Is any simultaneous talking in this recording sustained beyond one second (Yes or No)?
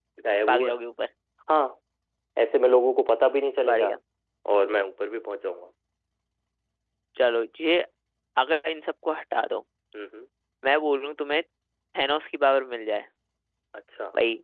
No